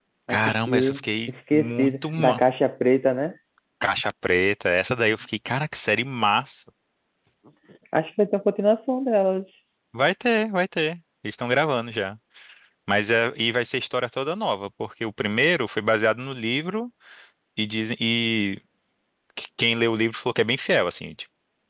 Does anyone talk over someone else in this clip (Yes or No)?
Yes